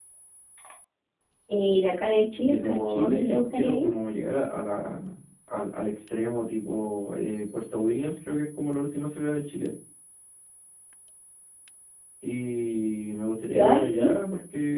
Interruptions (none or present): present